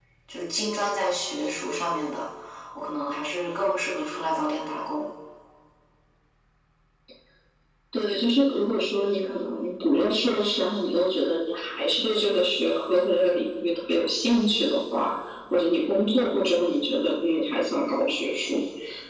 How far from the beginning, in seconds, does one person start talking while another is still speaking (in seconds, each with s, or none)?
none